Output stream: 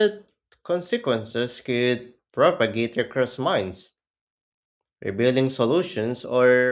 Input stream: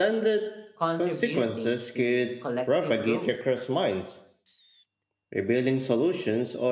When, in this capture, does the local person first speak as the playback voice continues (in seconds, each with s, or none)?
0.8 s